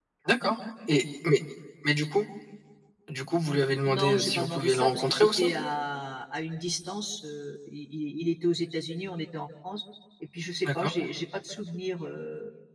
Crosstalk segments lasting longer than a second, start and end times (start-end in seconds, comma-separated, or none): 3.9-5.5